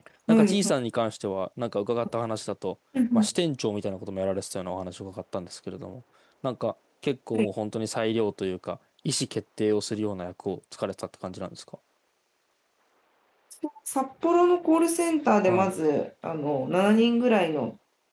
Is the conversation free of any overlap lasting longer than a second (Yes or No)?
Yes